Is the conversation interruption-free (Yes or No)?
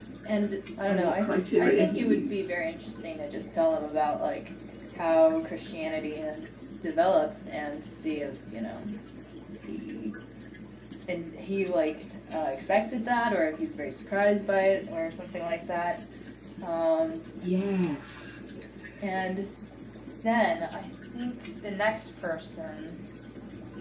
No